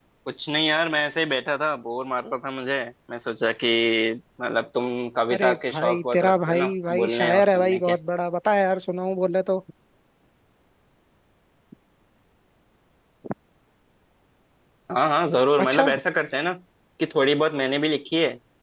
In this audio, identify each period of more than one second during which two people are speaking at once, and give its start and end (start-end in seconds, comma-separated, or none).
5.3-8.0